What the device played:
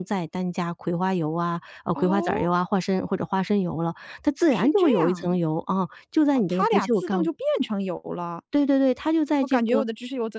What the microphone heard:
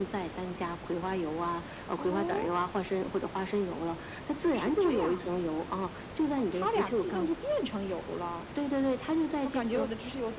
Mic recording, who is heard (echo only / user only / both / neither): echo only